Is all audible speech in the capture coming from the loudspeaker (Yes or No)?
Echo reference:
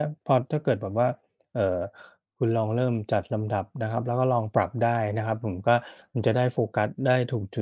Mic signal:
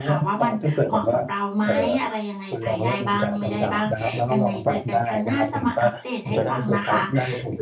No